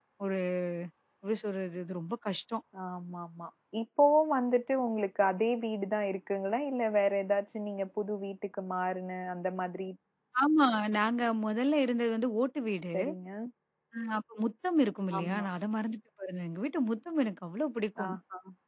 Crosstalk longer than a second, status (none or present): none